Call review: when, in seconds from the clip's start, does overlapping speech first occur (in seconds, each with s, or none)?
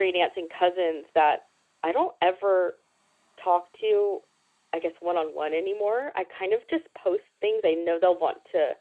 none